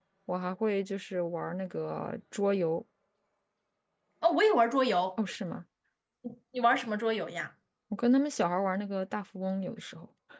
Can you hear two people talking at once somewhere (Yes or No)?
No